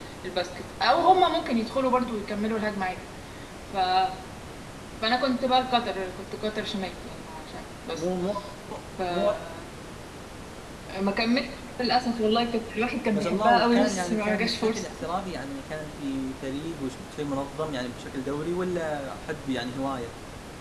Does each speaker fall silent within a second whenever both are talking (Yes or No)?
No